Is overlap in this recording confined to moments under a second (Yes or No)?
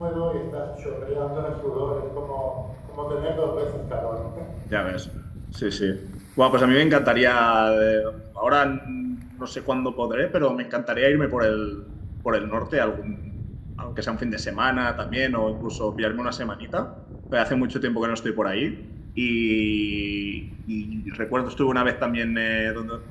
Yes